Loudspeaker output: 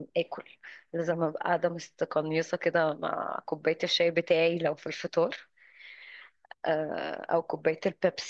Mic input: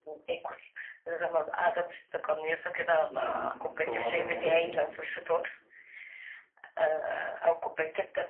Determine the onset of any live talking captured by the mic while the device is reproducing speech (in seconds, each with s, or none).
3.1 s